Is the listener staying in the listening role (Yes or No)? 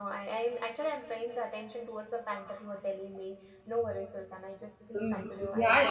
No